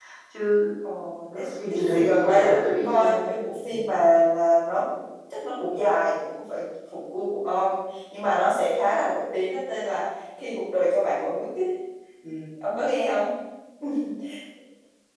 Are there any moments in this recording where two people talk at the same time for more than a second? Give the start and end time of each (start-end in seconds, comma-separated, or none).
1.4-3.2